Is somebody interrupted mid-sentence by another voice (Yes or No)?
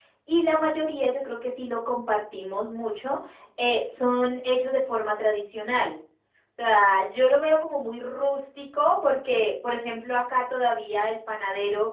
No